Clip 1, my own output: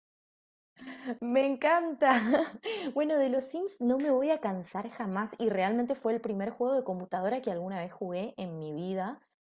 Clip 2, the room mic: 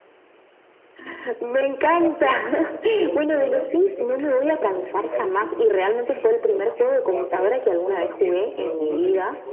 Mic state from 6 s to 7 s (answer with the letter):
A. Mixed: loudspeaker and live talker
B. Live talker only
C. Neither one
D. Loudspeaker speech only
A